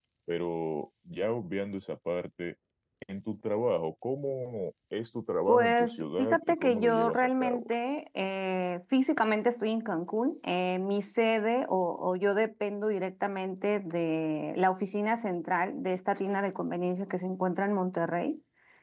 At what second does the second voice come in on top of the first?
5.5 s

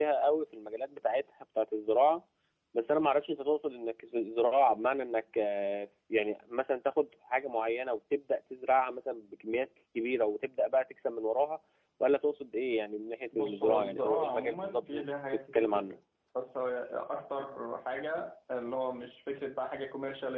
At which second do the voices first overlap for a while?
13.3 s

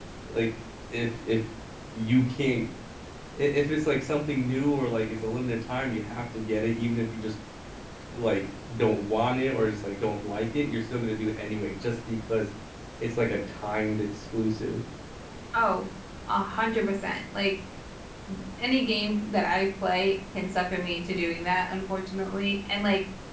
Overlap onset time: none

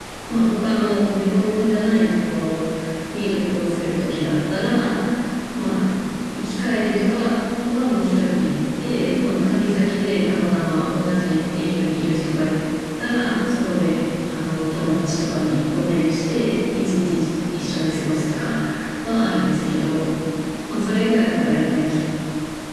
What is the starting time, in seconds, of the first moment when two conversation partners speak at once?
none

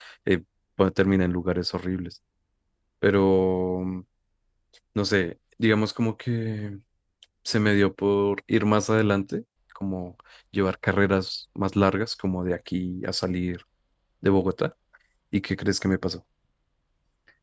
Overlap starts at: none

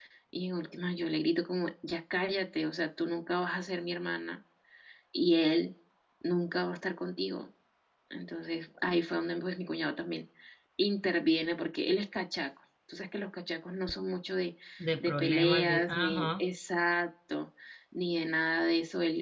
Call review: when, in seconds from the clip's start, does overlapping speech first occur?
15.0 s

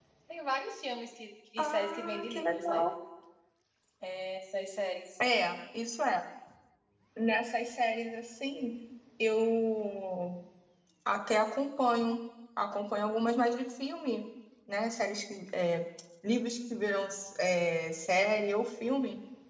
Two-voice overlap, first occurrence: 1.6 s

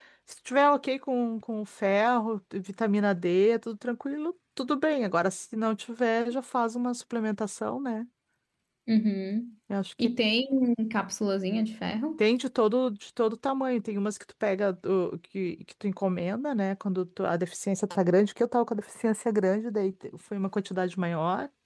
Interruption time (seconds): none

